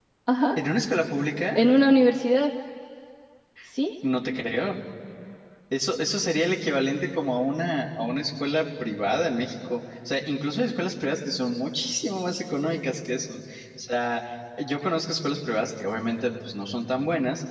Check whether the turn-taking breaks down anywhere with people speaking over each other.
No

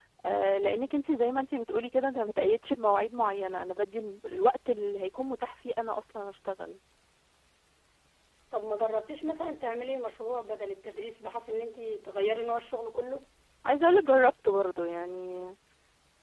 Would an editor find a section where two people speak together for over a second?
No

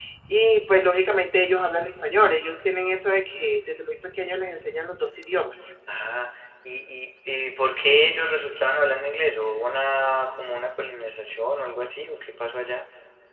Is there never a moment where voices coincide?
Yes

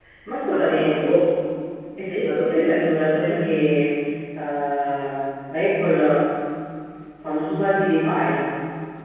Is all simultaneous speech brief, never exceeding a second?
No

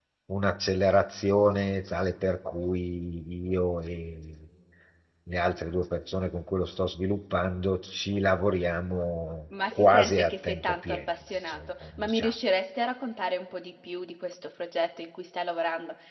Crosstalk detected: Yes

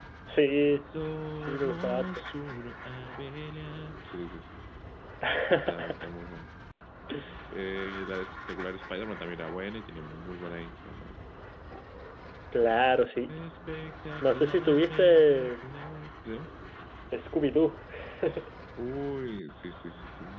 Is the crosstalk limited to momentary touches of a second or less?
No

